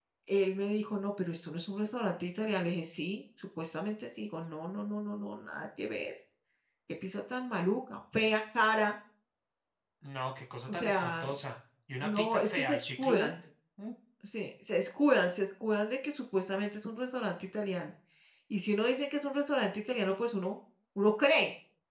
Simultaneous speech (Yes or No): Yes